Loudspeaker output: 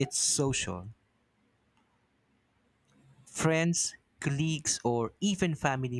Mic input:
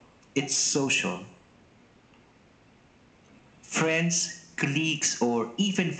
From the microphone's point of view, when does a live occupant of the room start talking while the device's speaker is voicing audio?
none

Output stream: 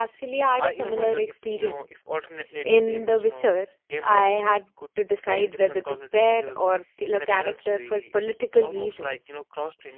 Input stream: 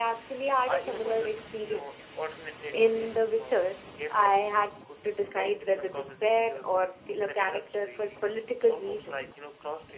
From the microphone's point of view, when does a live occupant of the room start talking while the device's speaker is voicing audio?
none

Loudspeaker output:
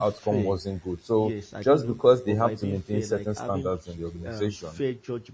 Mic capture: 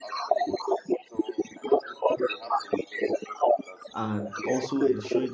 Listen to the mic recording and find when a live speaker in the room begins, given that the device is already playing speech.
4 s

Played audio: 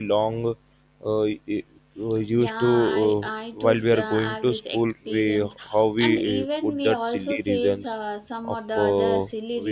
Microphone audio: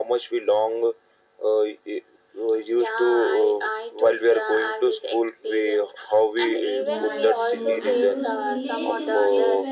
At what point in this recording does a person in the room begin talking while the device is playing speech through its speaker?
7 s

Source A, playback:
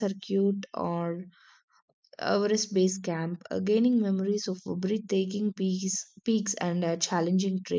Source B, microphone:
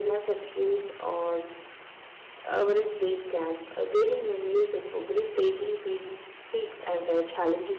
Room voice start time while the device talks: none

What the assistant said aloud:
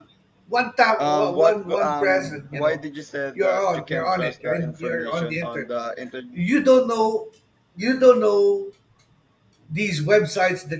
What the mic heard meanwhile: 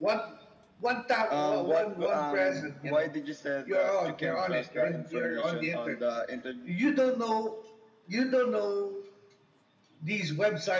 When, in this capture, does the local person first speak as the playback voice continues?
none

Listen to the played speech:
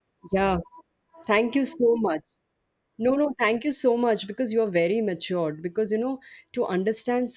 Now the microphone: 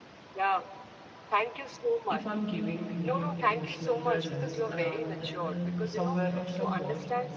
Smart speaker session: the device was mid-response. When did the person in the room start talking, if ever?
2 s

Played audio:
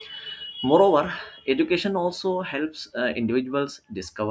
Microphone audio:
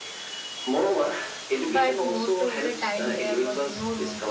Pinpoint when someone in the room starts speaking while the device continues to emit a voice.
2 s

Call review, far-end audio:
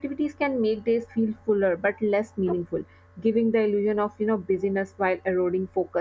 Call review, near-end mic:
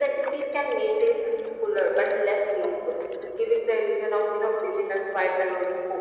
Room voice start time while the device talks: none

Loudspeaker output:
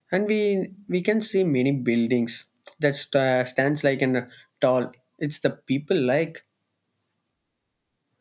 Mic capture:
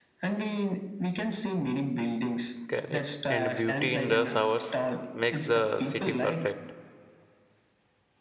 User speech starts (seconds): 3 s

